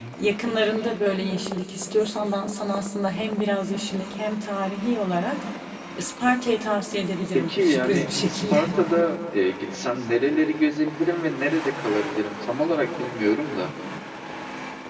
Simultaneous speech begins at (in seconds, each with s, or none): 7.3 s